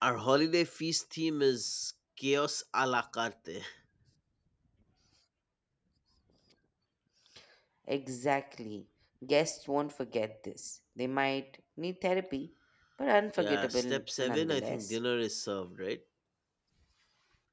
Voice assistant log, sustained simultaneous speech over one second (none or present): present